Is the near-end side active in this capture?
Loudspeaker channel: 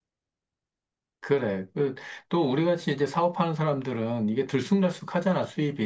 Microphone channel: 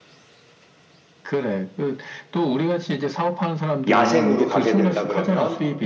Yes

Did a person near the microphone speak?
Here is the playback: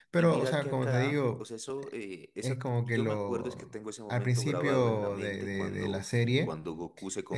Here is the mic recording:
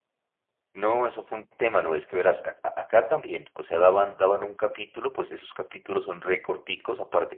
Yes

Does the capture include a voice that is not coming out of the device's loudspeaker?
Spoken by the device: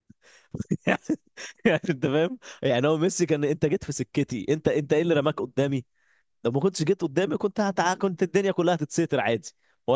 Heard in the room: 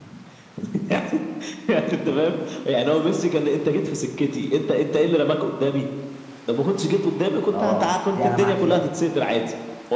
Yes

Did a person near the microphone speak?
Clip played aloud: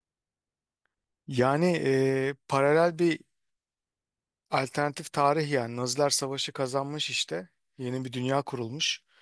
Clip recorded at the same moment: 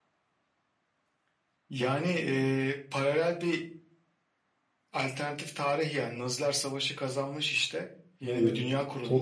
Yes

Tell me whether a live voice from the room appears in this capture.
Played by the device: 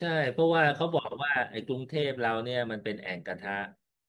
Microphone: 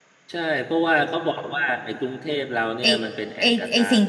Yes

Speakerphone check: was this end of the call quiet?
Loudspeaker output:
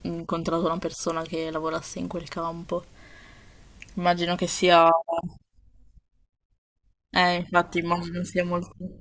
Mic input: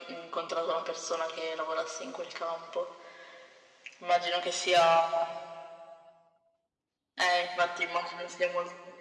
Yes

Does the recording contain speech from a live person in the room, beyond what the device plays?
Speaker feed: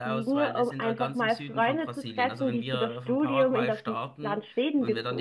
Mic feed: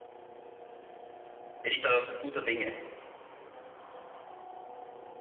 Yes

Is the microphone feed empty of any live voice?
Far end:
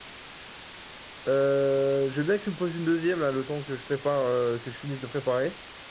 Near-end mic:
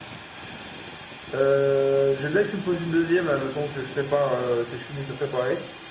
Yes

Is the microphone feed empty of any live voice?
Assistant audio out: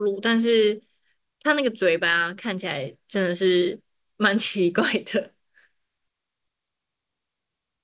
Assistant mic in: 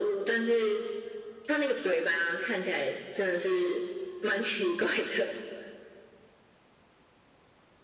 Yes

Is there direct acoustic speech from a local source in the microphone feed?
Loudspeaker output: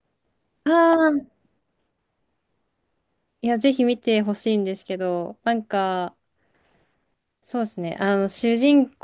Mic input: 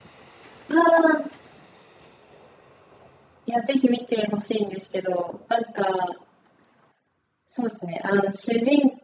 No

